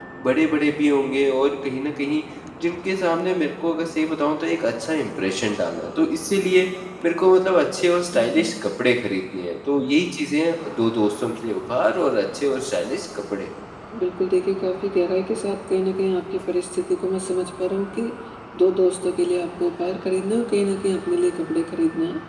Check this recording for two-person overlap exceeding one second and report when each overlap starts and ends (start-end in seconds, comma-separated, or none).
none